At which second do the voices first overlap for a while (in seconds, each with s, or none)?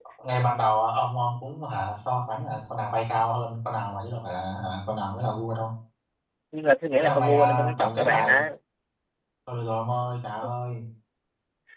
7.0 s